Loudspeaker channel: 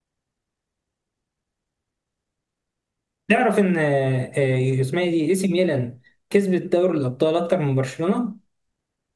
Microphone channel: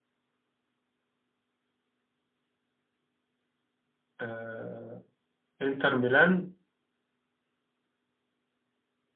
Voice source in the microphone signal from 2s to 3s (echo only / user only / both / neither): neither